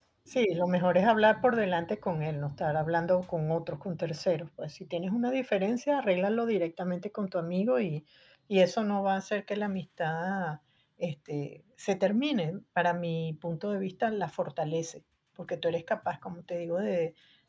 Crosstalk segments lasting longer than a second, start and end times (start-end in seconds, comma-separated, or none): none